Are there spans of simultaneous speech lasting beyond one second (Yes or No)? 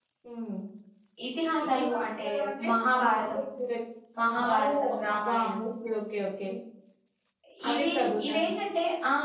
Yes